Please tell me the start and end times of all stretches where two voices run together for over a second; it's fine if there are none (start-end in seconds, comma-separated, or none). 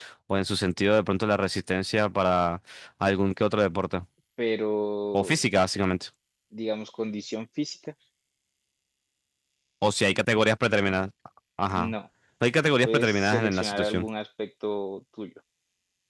12.8-14.1